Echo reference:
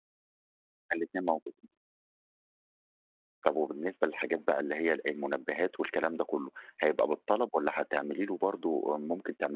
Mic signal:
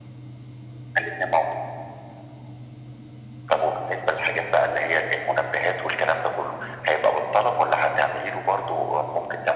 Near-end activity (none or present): none